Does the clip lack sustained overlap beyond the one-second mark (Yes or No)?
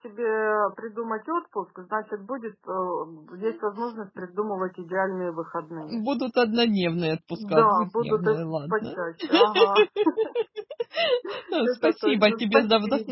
No